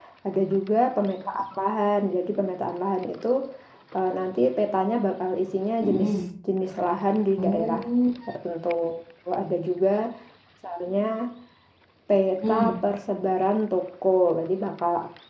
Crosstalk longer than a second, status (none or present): none